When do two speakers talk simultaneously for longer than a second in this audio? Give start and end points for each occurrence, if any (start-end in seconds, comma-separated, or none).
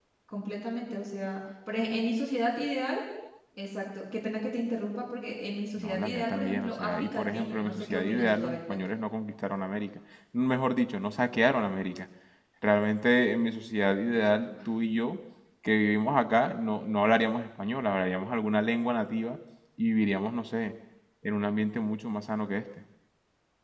5.8-9.0